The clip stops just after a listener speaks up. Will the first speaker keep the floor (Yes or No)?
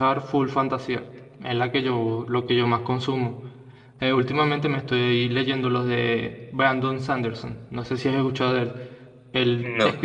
Yes